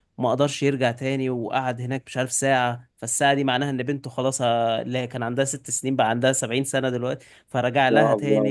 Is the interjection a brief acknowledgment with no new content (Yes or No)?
Yes